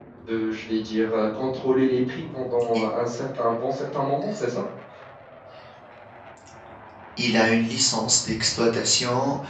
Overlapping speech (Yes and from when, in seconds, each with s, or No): No